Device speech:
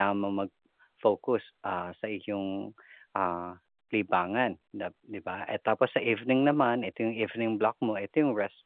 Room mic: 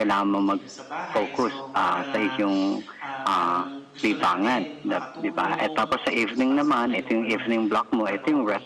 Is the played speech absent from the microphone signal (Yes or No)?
No